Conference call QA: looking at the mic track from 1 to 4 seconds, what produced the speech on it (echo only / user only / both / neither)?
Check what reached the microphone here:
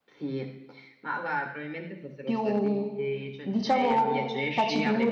both